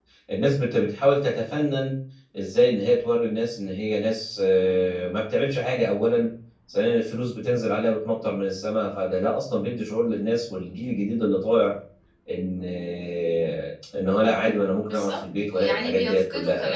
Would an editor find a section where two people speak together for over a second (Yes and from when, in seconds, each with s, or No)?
Yes, from 14.8 s